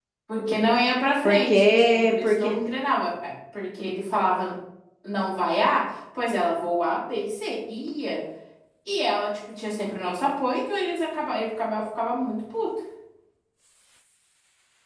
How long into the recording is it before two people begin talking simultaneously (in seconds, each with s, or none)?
1.2 s